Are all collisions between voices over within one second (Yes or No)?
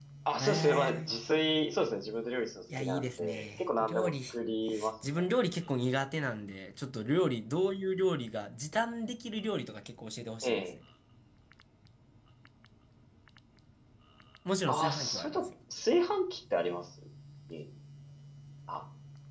No